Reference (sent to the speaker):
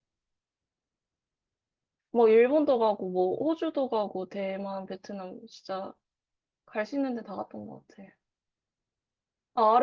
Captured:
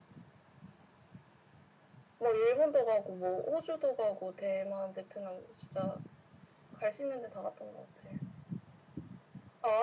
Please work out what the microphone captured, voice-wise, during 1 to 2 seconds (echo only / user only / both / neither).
neither